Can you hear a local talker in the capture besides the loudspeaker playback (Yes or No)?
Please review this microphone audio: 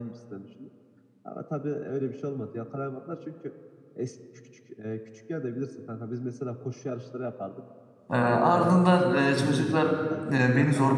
Yes